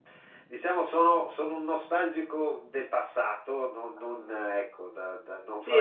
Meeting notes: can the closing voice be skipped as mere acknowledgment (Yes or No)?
No